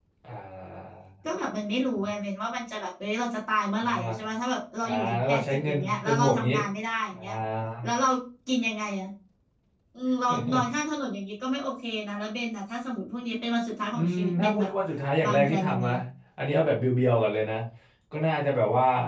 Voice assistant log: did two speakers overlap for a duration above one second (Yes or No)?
Yes